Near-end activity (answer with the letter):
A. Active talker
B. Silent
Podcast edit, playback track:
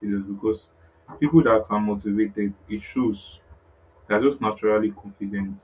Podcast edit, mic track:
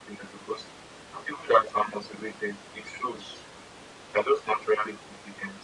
B